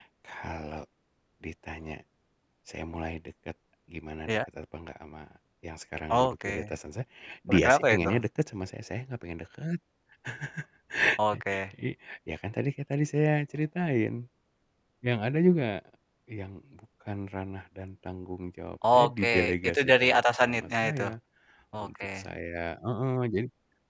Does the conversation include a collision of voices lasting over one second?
Yes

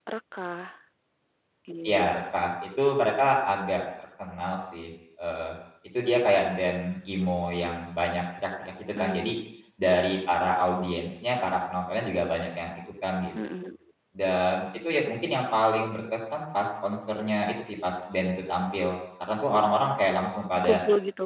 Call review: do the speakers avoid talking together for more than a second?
Yes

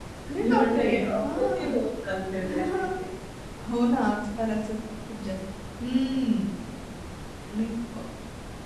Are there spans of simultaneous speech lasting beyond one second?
Yes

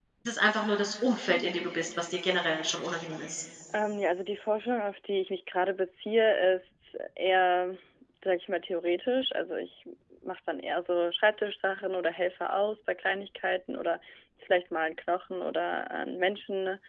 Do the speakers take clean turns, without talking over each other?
Yes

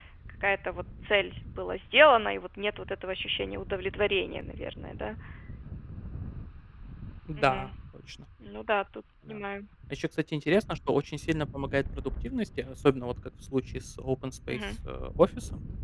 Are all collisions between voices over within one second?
Yes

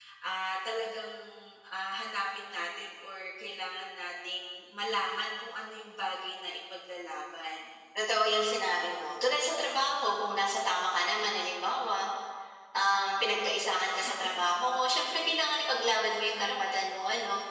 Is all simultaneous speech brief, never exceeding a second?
Yes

